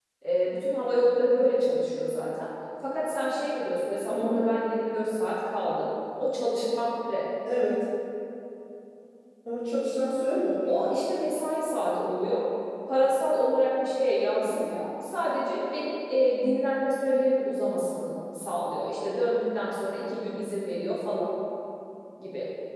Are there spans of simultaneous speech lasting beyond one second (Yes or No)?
No